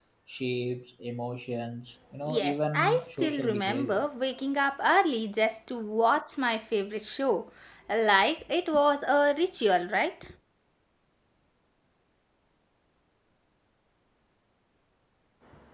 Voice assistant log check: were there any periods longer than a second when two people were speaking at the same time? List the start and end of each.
2.2-4.1

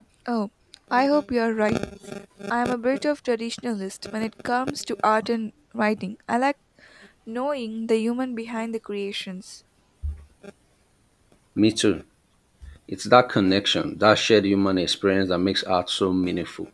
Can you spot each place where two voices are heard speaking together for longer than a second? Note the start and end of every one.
none

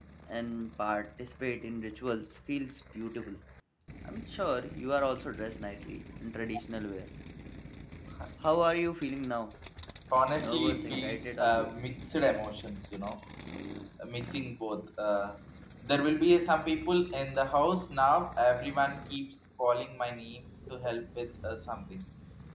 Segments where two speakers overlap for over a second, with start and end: 10.3-11.7

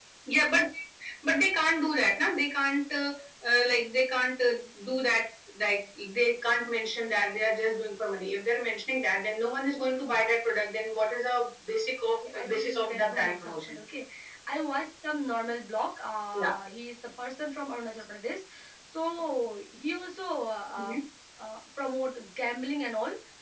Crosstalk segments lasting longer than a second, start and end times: 12.3-13.8

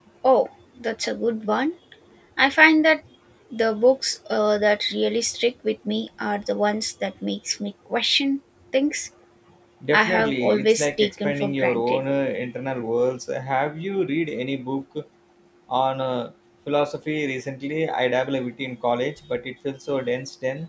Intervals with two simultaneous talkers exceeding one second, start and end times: 9.9-12.0

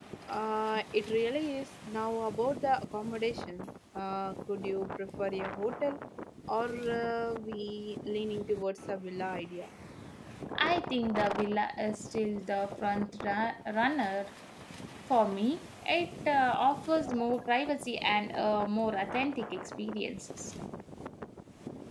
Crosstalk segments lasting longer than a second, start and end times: none

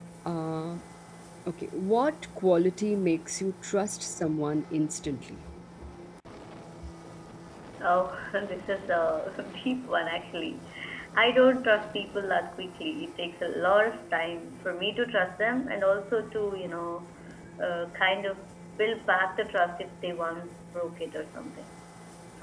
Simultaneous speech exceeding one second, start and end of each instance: none

